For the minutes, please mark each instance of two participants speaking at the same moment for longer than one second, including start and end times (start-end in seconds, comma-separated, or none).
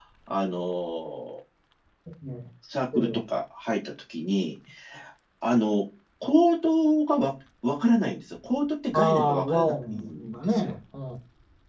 8.9-10.7